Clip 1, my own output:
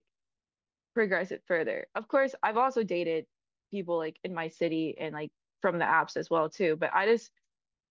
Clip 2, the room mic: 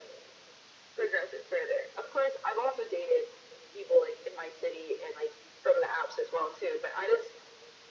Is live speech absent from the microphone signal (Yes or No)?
Yes